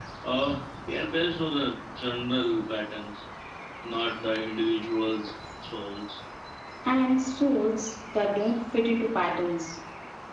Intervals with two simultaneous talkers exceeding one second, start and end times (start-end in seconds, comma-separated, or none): none